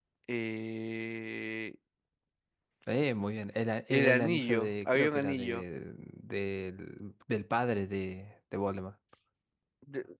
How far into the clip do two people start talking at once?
3.9 s

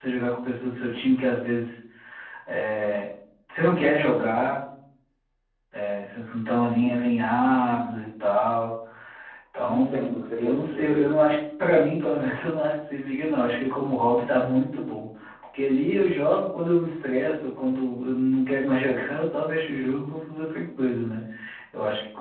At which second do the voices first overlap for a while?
9.7 s

